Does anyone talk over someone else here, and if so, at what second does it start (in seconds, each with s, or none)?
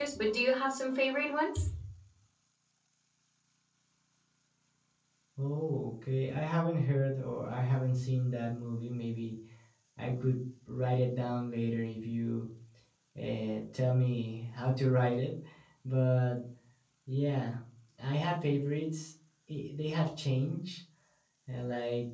none